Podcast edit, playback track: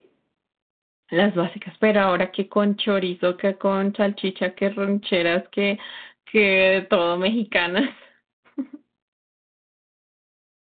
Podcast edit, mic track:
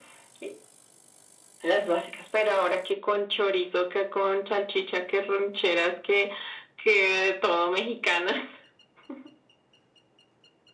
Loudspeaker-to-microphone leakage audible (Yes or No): Yes